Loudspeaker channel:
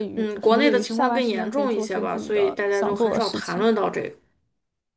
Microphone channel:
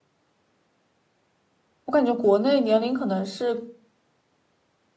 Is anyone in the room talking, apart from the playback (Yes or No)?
Yes